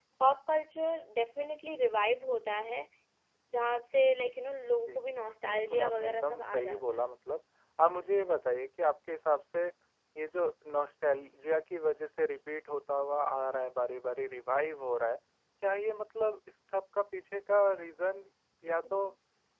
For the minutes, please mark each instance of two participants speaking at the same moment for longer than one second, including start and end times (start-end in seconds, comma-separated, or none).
5.5-7.1